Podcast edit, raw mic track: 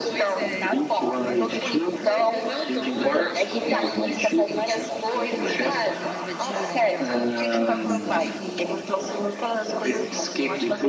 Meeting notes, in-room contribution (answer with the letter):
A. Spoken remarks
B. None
A